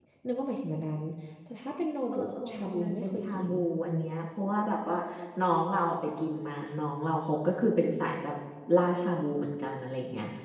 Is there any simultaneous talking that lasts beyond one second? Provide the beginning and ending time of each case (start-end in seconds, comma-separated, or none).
2.1-3.5